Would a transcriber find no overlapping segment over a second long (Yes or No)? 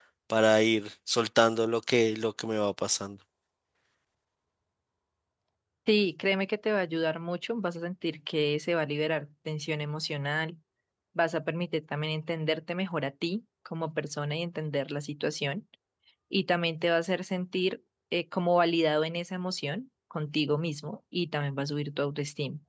Yes